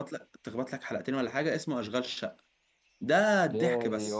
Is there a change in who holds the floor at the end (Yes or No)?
Yes